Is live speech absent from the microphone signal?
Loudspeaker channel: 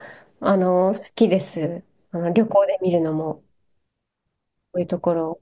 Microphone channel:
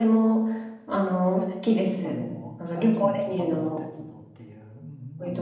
No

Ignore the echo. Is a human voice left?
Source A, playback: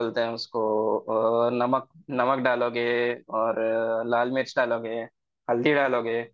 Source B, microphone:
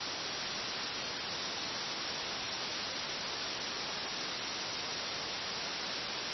No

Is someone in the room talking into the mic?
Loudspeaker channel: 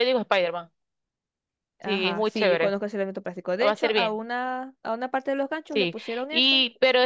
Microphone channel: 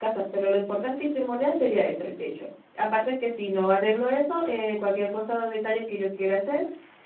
Yes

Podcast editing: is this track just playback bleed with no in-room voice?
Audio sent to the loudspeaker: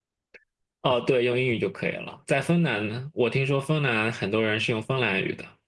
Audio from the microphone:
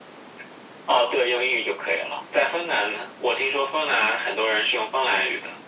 Yes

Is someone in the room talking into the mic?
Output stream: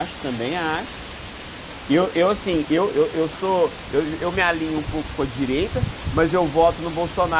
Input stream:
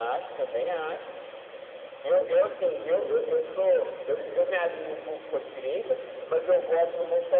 No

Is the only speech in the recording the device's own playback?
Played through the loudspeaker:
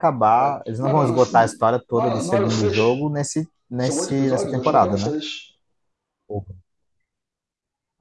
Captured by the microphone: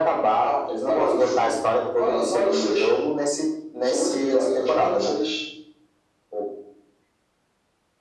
Yes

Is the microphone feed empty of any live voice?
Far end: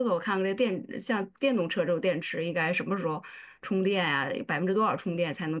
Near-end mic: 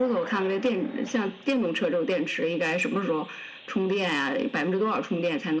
Yes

